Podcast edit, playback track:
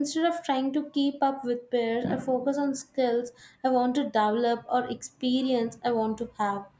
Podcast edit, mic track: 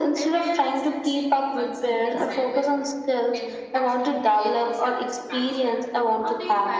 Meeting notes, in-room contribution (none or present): present